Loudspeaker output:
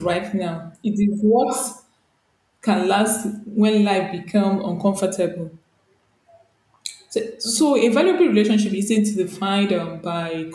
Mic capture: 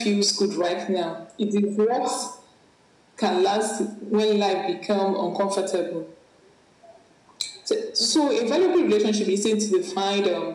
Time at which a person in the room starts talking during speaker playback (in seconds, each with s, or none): none